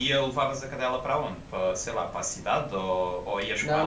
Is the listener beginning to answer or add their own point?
Yes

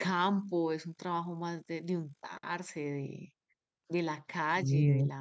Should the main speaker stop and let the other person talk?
No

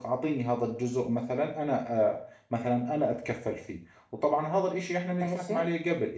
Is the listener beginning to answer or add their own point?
No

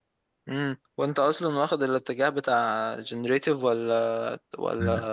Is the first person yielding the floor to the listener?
Yes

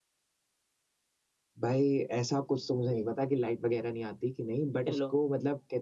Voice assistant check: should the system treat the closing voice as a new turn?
No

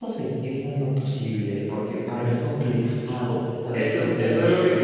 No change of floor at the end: No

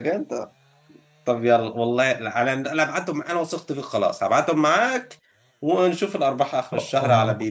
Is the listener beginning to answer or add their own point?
Yes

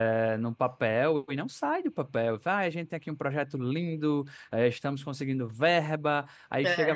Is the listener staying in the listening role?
Yes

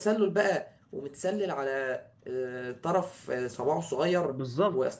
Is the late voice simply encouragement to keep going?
No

